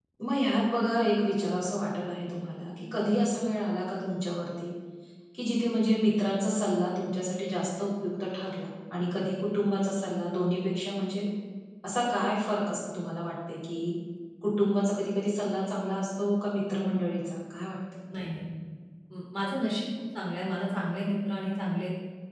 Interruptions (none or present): none